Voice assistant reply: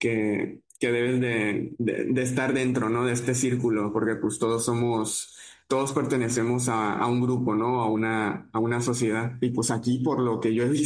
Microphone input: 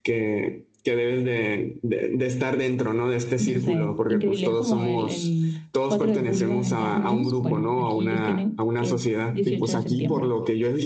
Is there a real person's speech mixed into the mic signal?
Yes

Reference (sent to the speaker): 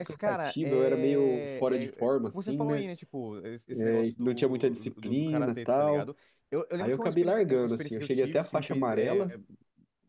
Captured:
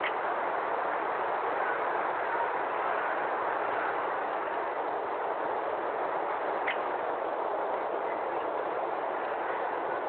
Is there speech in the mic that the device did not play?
No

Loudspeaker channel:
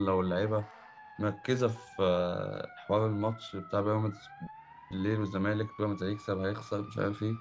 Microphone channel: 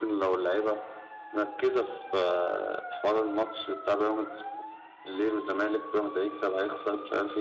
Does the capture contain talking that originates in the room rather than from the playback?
No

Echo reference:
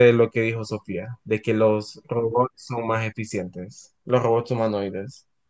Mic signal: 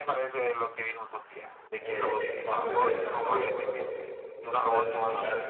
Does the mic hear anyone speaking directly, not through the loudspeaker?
Yes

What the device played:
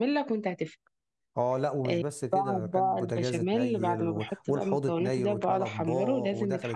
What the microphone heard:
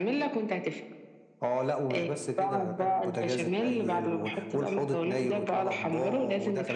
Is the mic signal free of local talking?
Yes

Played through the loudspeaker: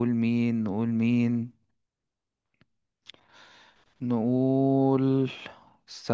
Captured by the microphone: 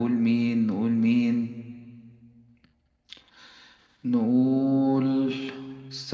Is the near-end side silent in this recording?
Yes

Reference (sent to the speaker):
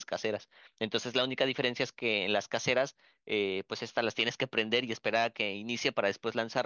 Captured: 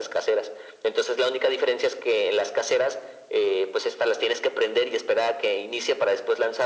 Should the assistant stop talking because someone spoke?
No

